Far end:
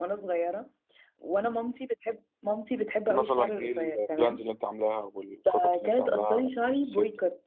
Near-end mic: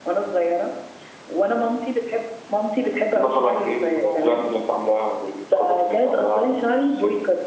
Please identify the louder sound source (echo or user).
echo